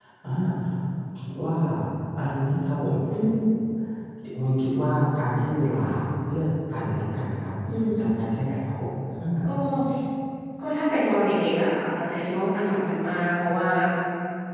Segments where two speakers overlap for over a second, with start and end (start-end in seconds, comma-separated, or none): none